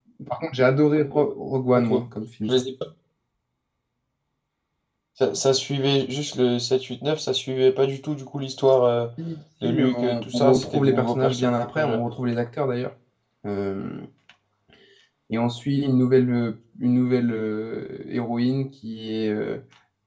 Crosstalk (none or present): present